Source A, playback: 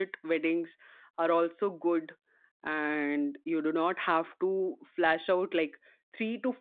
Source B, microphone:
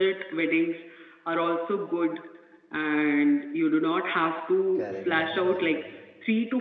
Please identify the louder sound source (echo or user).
echo